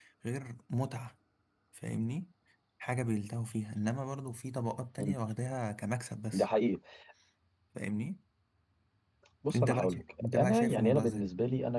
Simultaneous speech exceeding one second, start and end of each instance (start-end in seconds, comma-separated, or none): 9.6-11.3